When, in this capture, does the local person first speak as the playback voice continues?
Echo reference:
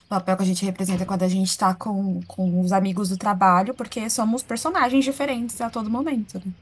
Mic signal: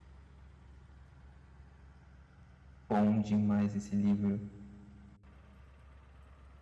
2.9 s

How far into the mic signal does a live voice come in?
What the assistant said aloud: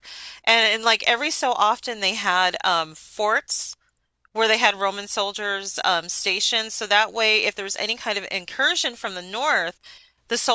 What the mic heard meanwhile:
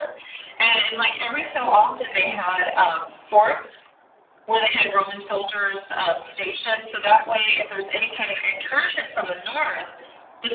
none

